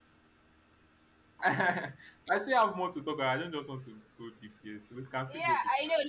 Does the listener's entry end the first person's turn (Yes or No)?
Yes